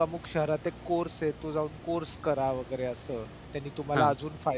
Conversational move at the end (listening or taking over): listening